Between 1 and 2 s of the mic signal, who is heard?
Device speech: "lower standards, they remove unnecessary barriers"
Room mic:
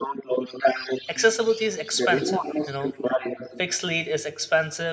both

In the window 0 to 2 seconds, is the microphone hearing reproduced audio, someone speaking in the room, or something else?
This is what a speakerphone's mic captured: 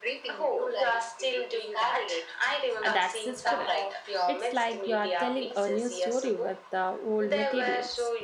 echo only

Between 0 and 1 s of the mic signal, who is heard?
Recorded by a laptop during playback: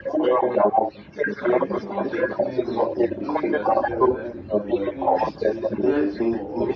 echo only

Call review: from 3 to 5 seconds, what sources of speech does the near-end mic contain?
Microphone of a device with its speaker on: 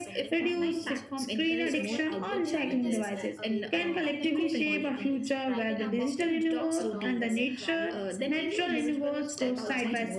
both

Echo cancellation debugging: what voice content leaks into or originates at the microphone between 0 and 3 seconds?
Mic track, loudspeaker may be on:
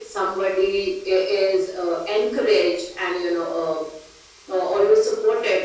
echo only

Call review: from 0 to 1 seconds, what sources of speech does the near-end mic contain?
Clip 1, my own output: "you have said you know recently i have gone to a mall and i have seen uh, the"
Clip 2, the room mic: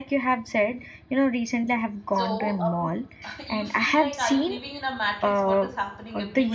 echo only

